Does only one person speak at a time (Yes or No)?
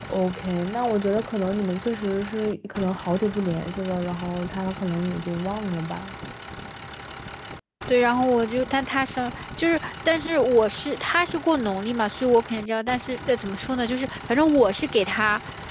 Yes